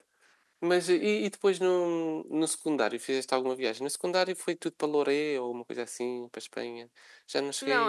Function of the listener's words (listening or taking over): taking over